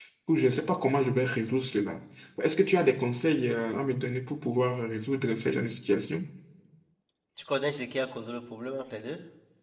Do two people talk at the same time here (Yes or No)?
No